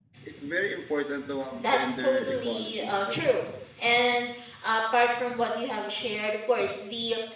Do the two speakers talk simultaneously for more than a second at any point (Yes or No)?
Yes